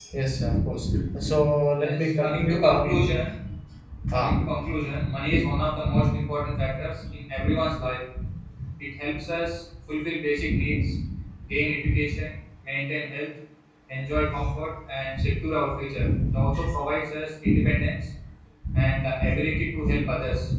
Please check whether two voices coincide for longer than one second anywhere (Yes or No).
Yes